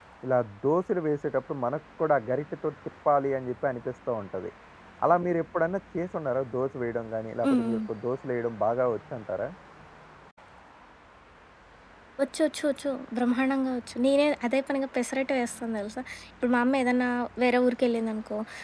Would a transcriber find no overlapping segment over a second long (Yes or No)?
Yes